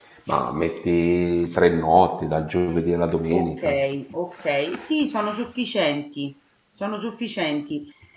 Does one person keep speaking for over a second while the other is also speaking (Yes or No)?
No